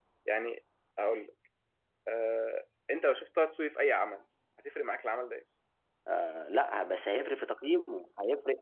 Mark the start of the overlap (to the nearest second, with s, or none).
none